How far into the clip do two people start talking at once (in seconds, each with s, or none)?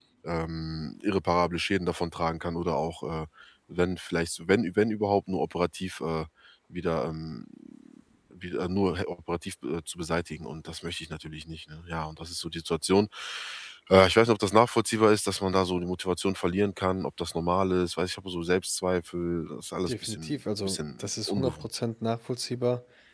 19.9 s